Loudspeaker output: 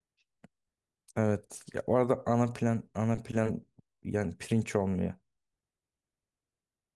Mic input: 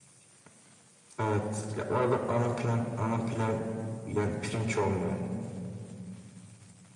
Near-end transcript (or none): none